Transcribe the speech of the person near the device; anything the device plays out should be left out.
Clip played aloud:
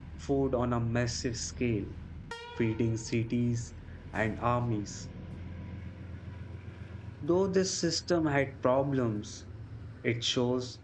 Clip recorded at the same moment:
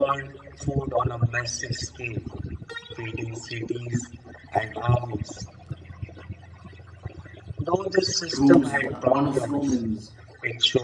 Rome's one of Romans,

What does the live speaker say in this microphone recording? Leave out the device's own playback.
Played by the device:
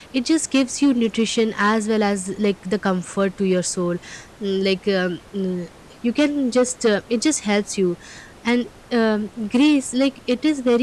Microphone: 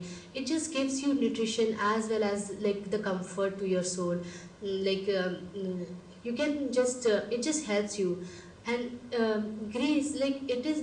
none

